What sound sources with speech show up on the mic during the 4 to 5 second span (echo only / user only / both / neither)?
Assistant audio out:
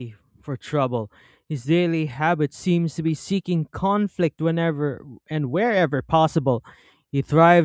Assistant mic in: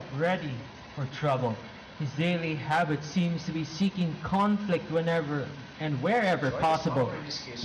echo only